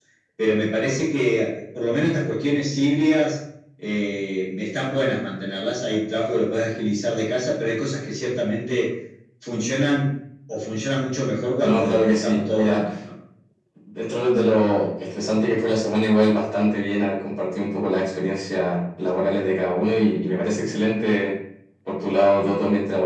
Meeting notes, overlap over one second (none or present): present